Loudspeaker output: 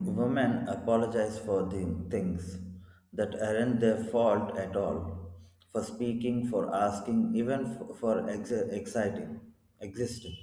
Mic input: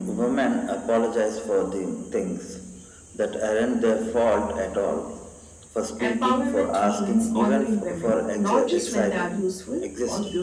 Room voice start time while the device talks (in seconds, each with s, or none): 6.0 s